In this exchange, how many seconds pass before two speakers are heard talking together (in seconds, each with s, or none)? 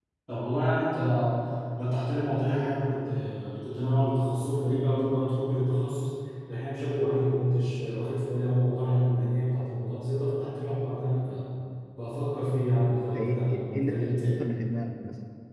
12.9 s